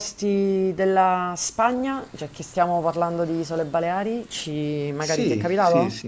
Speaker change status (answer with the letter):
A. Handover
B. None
A